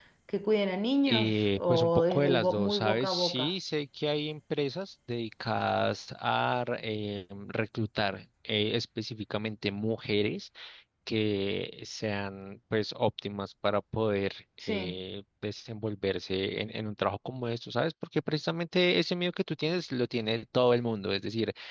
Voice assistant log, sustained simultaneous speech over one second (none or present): present